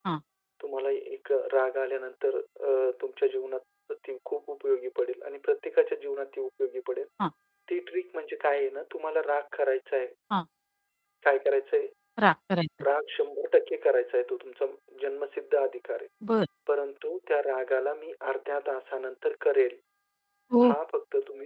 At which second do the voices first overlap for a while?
none

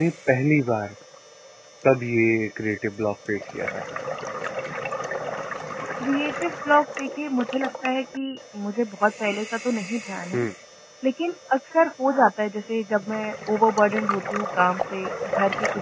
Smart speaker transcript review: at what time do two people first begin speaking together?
none

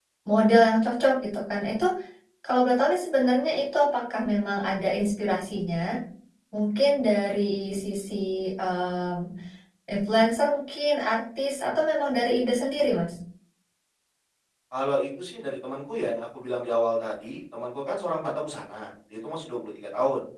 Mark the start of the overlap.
none

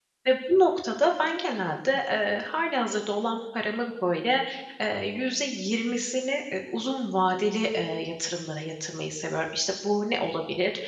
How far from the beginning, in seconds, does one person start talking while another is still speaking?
none

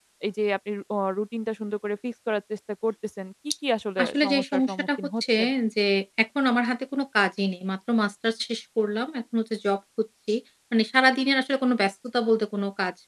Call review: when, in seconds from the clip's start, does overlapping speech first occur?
4.0 s

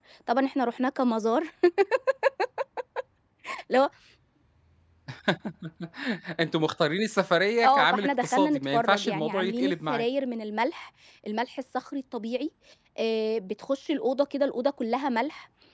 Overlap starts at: 7.6 s

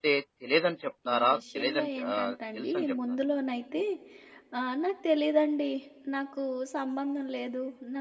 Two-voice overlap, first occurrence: 1.1 s

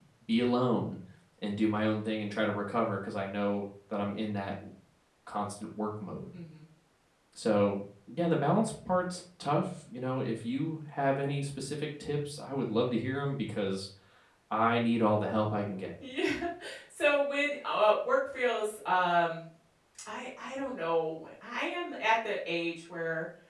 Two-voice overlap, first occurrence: none

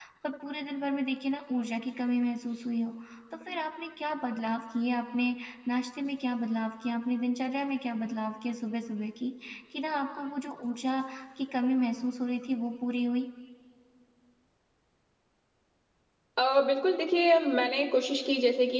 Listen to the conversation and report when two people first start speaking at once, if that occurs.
none

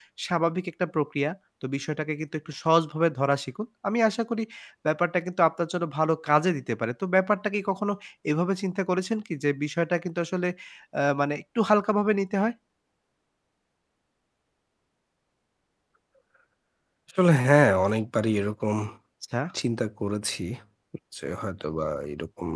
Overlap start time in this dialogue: none

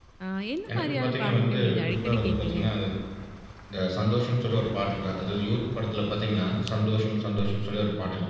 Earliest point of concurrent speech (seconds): 0.7 s

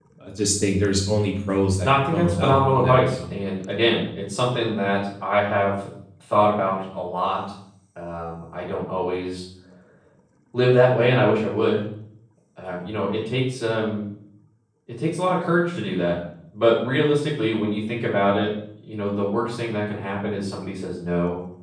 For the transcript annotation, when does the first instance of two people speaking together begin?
1.8 s

